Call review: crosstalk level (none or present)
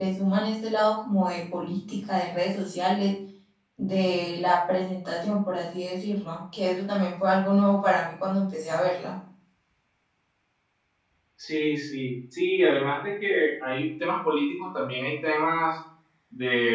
none